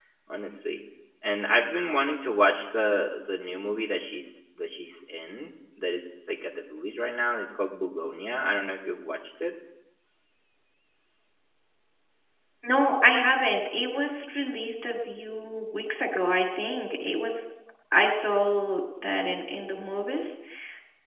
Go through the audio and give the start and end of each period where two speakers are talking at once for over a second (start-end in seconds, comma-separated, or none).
none